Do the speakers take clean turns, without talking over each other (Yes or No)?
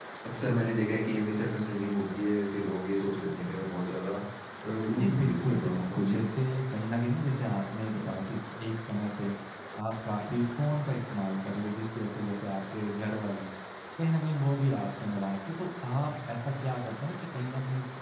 No